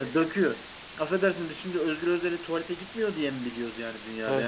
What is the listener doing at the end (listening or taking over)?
listening